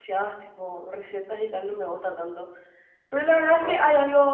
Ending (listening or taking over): listening